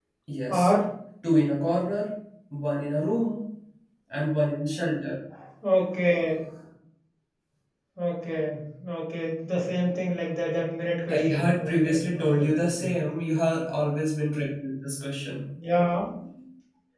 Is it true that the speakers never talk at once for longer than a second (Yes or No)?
No